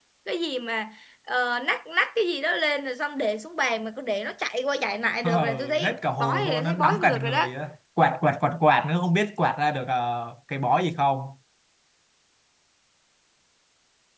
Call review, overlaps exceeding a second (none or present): present